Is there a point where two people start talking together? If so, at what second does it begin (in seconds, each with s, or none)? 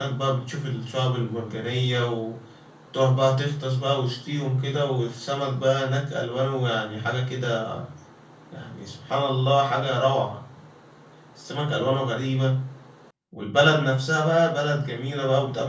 none